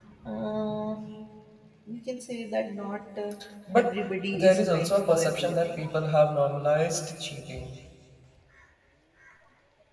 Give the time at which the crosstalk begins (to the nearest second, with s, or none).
4 s